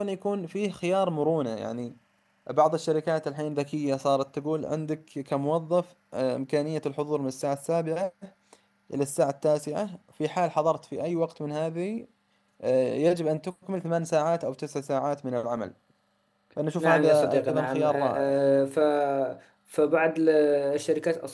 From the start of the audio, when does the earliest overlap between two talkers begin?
16.8 s

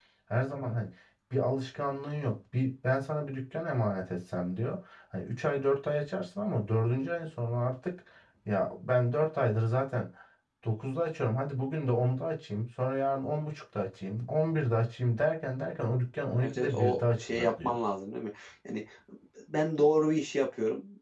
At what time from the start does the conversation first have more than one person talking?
16.4 s

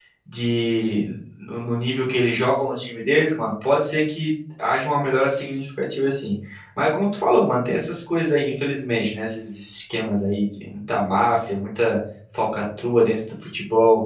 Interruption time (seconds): none

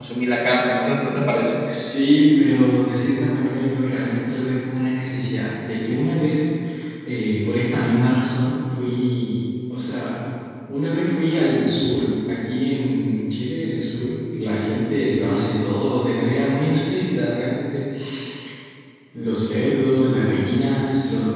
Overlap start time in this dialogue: none

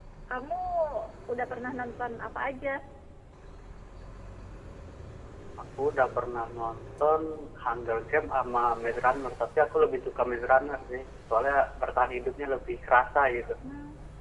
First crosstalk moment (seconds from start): none

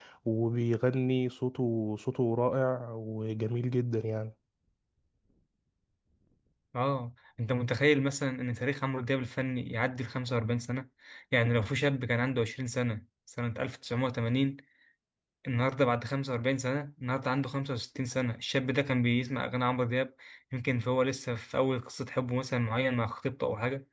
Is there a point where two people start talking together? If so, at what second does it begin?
none

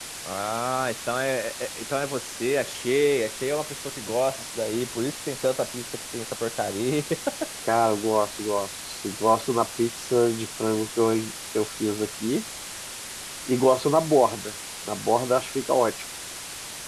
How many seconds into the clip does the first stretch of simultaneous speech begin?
none

